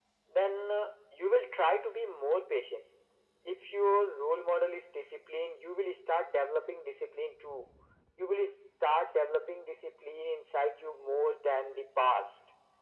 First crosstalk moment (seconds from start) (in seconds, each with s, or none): none